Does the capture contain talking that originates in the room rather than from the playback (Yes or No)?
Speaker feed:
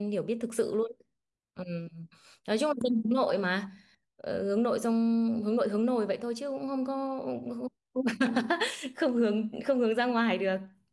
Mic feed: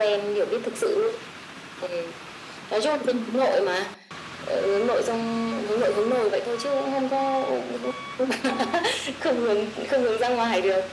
No